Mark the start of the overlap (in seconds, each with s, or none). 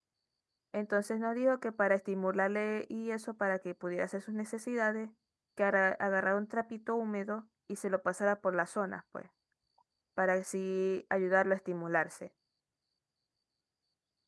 none